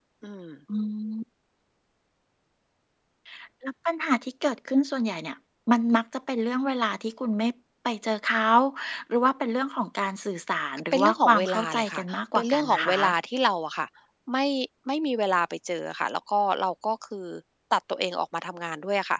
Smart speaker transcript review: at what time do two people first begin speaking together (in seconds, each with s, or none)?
10.9 s